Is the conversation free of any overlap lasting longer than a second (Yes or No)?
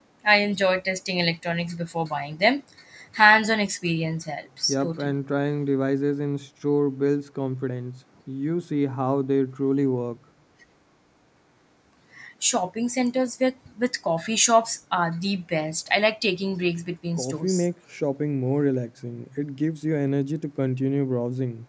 Yes